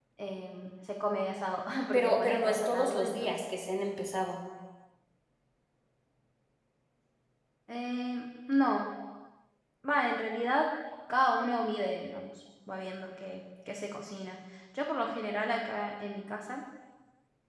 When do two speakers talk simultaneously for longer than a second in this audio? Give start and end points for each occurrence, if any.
1.9-3.3

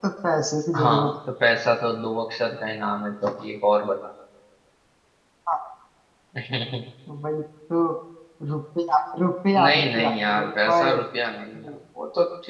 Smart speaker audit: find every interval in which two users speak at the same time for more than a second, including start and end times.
9.6-10.9

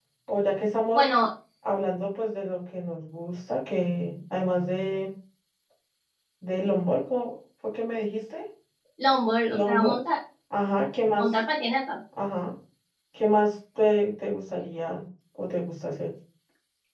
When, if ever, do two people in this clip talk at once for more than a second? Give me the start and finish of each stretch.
none

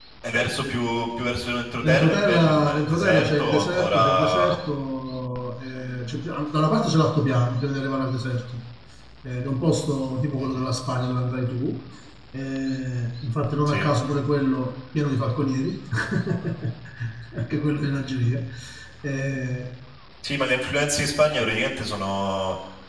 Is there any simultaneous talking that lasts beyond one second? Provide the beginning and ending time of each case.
1.8-4.6

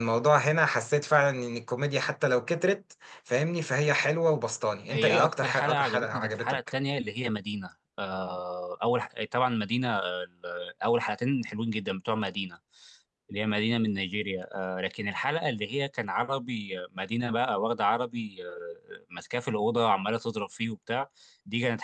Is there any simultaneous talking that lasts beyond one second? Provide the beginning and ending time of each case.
4.9-6.6

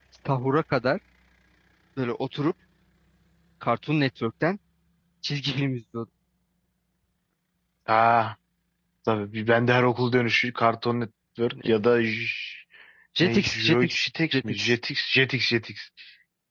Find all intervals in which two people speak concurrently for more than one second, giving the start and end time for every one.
13.2-14.8

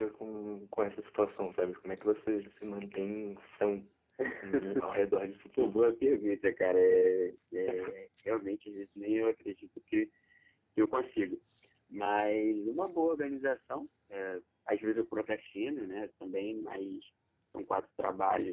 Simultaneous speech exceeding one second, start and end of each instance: none

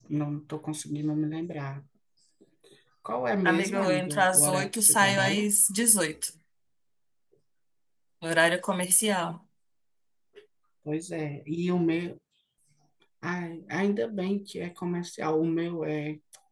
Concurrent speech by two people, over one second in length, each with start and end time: 3.4-5.5

